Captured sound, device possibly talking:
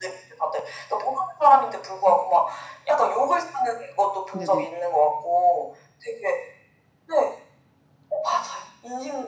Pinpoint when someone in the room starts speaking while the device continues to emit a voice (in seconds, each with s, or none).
4.3 s